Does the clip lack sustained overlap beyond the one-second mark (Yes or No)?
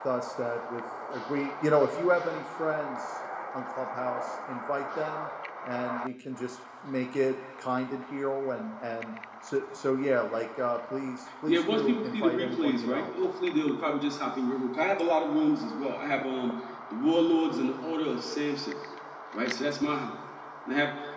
No